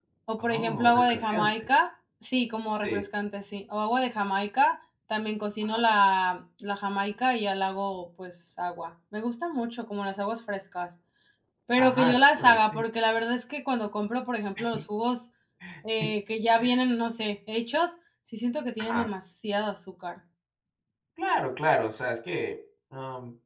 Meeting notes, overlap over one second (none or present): present